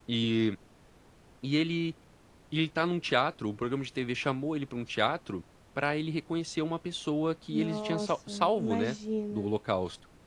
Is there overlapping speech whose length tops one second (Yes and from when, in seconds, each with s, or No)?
Yes, from 7.5 s